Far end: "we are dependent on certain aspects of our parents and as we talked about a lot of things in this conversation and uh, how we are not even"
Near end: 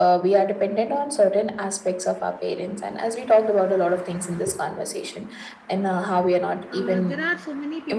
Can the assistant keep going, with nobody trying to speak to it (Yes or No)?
No